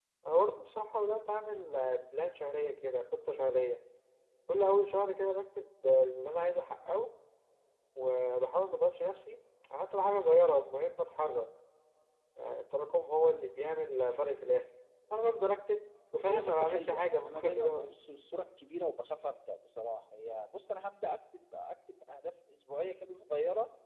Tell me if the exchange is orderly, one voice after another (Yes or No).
No